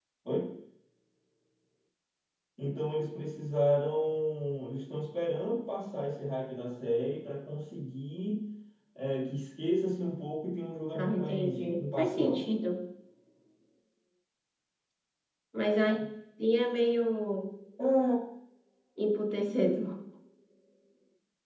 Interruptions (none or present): present